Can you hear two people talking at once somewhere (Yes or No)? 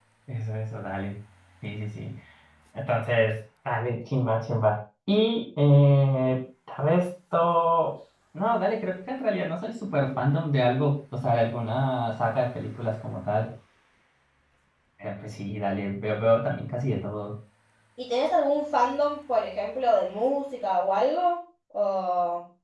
No